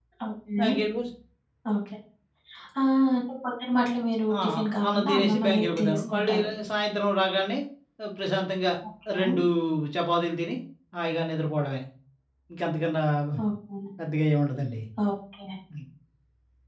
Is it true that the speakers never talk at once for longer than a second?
No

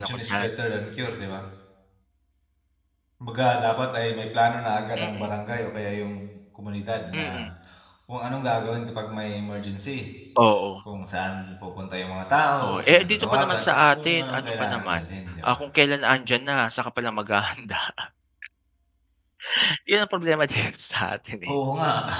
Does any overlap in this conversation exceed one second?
Yes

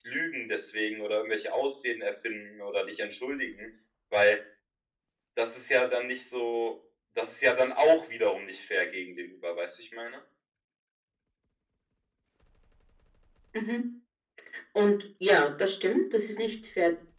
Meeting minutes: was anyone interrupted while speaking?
No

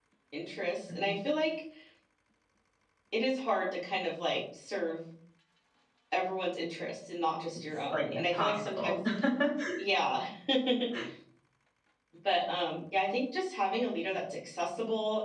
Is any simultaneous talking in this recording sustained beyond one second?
Yes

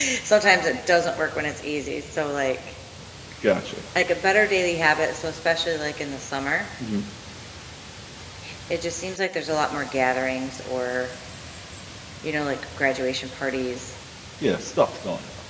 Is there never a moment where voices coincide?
Yes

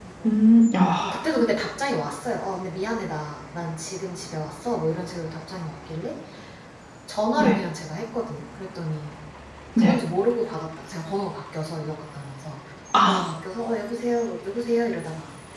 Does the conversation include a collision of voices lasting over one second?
No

